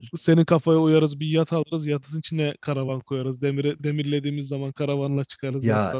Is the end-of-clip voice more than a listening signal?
Yes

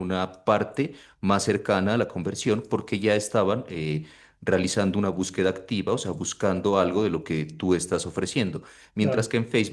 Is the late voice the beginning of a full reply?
No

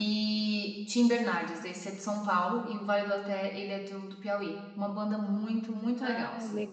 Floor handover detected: Yes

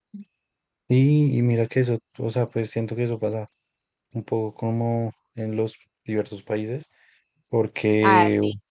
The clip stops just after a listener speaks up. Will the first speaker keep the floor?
No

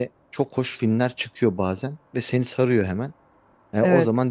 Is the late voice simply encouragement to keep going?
Yes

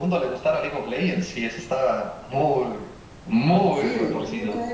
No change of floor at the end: No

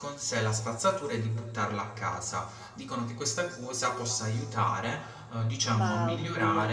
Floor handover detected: No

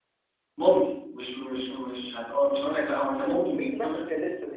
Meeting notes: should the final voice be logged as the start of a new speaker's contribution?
Yes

